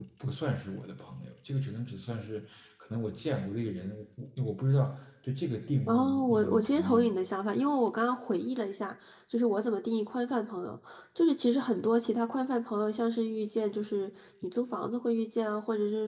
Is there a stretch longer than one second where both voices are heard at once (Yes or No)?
Yes